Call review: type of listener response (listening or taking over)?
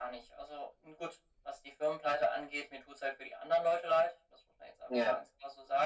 listening